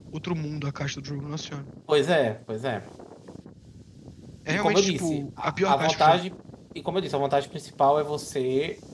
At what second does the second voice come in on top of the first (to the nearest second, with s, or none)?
5 s